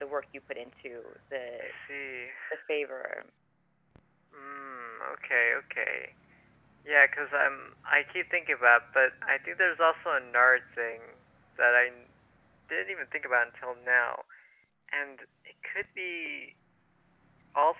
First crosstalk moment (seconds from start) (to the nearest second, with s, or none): none